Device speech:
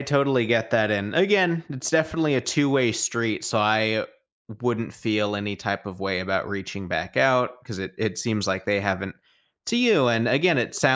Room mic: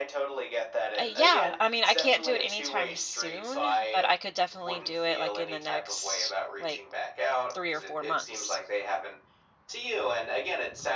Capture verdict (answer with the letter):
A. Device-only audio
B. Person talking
B